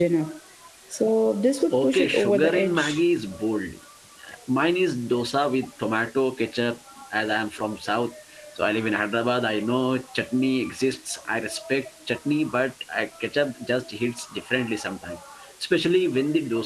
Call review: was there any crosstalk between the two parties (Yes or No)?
Yes